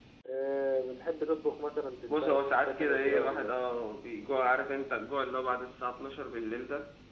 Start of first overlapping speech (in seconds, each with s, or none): 2.1 s